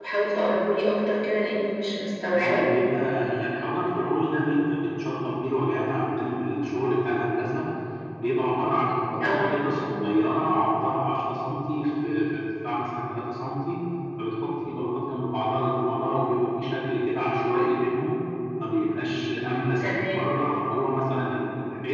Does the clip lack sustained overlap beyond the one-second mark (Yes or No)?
Yes